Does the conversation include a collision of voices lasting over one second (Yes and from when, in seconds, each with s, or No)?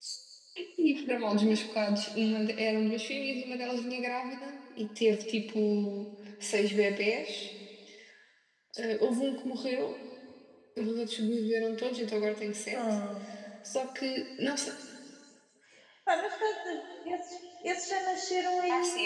No